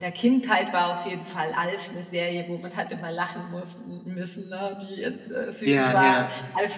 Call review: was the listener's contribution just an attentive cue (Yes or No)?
Yes